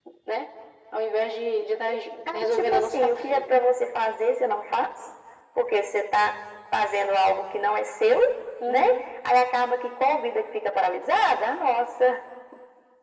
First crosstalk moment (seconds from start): 2.3 s

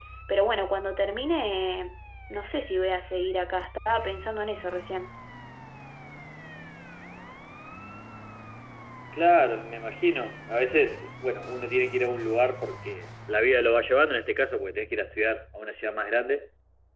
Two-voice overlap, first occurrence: none

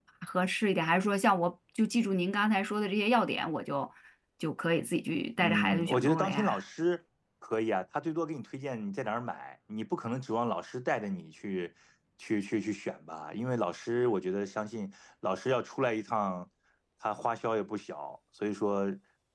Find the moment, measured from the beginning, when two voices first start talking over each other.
5.4 s

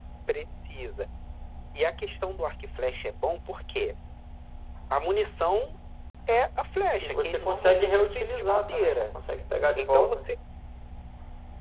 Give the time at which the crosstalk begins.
7.0 s

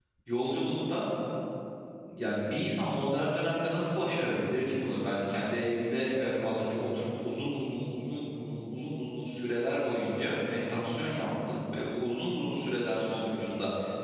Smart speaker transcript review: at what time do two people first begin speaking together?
none

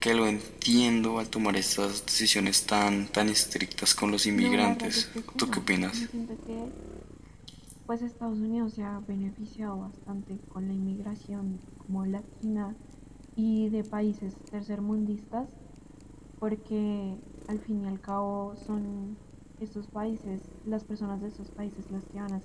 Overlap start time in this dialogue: 4.3 s

